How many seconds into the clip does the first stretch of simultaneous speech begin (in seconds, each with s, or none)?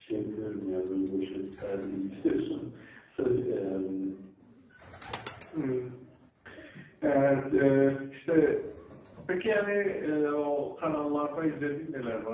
none